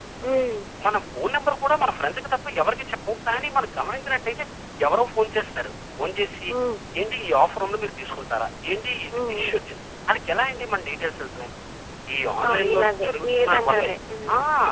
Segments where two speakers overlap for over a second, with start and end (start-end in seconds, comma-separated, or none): 12.5-13.9